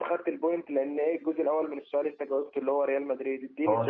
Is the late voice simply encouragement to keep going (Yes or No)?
No